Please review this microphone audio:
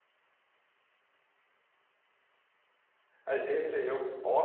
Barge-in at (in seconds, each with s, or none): 3.2 s